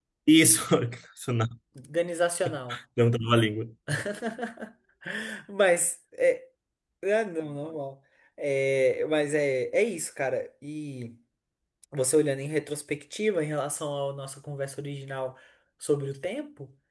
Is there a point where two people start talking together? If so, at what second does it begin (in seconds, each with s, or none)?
none